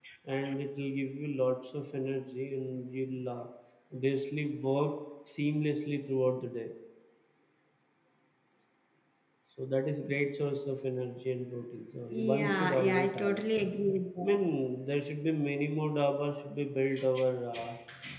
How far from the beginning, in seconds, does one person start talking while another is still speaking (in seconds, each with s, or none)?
12.1 s